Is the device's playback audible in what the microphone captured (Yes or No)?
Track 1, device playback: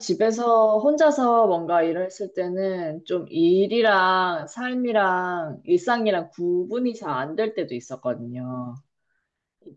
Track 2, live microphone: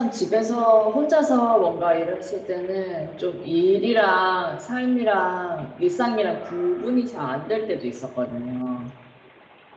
Yes